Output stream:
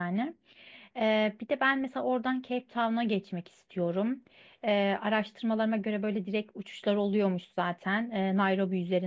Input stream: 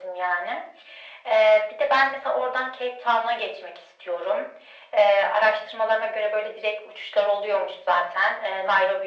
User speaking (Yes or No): No